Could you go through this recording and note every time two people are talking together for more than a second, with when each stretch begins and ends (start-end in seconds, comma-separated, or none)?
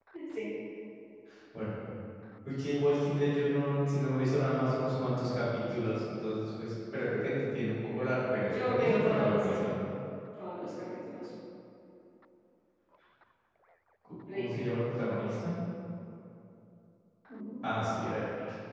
8.5-9.7